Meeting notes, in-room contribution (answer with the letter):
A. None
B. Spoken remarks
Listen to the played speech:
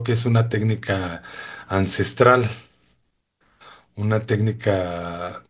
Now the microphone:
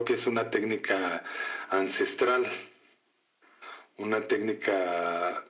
A